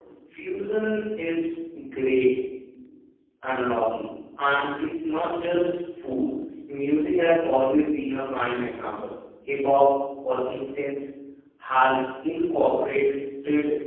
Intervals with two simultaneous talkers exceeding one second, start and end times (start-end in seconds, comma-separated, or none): none